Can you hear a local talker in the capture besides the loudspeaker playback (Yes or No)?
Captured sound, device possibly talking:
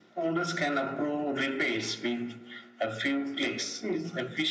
No